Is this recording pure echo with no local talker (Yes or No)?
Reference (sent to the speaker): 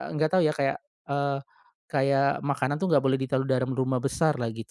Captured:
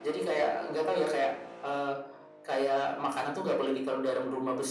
Yes